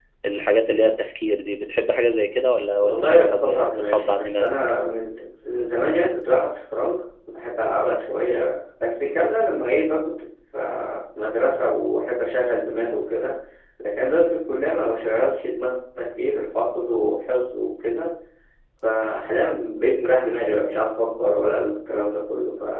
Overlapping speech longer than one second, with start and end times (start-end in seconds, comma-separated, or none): 2.8-4.6